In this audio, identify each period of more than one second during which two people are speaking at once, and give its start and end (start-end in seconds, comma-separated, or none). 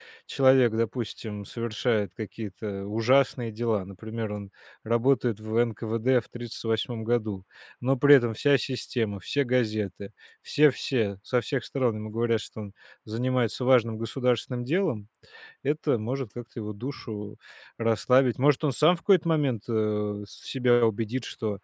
none